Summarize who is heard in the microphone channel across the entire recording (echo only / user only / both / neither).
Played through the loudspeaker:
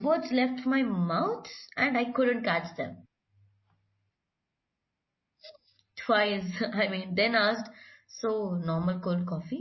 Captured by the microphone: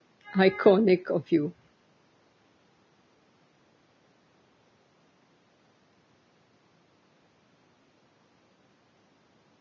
user only